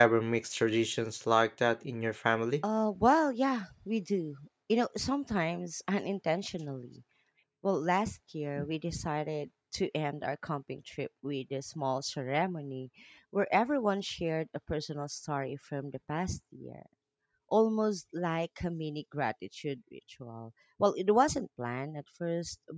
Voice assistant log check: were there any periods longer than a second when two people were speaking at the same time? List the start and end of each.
none

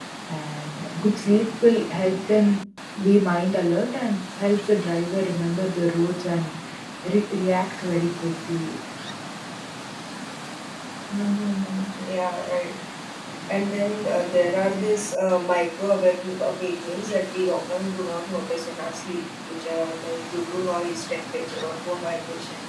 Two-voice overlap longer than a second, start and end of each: none

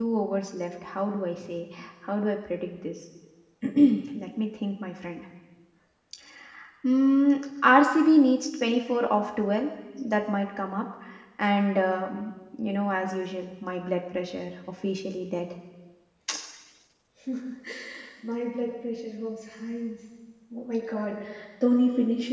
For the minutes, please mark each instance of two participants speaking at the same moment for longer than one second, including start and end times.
none

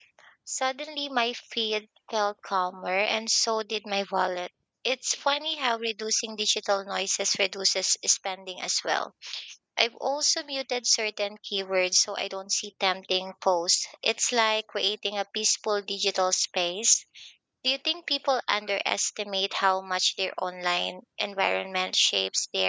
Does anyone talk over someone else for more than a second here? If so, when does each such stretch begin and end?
none

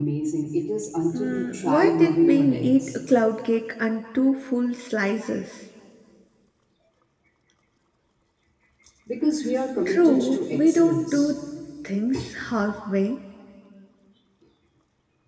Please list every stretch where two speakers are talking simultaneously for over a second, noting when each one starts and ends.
1.1-3.0, 9.9-11.3

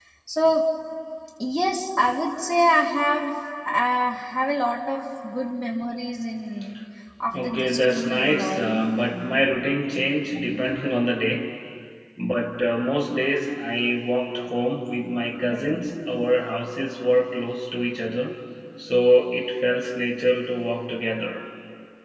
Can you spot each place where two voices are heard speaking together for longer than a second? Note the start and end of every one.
7.4-8.8

